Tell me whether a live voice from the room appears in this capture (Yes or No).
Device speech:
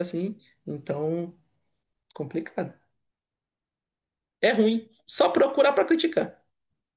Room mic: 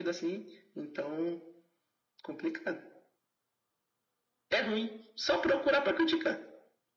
No